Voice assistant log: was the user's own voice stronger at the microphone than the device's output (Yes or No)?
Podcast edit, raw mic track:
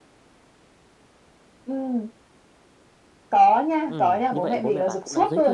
No